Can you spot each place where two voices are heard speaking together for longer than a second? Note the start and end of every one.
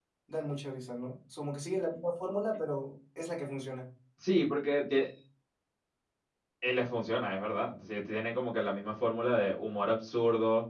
none

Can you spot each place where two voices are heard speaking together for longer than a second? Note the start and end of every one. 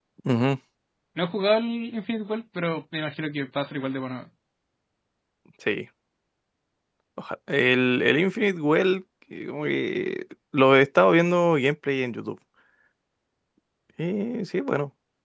none

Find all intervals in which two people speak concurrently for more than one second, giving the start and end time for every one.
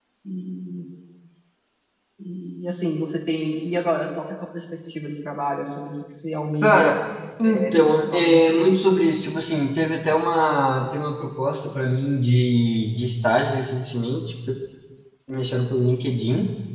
7.4-8.7

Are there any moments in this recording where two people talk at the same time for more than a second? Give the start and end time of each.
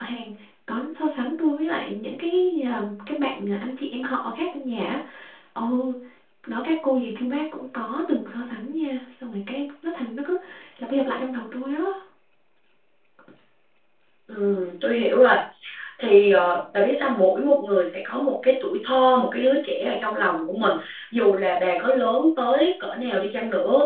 none

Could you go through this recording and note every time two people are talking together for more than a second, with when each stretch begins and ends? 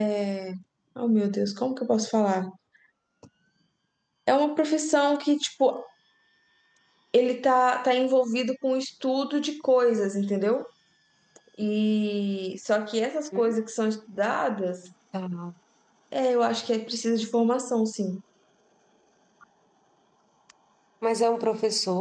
none

